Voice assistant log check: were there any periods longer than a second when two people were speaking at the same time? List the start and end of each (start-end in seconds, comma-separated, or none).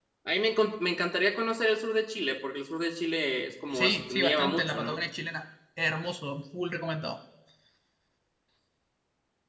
3.7-5.0